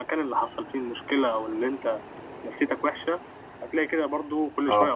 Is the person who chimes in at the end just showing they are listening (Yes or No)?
Yes